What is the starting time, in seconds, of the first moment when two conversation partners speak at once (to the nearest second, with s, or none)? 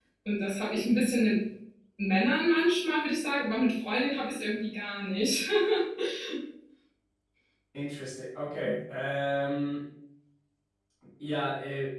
none